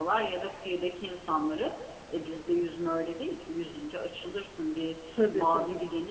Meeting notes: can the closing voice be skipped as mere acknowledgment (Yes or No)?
Yes